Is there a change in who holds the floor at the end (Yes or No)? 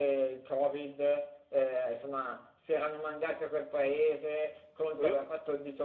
No